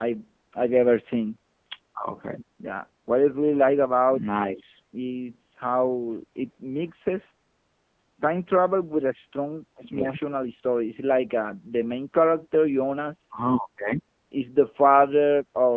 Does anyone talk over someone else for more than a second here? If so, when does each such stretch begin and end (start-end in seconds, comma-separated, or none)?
none